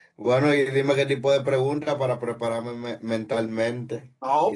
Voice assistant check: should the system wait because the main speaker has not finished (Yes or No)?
No